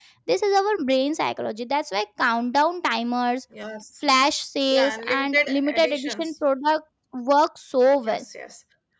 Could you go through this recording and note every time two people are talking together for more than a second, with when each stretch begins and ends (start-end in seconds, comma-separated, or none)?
4.7-6.3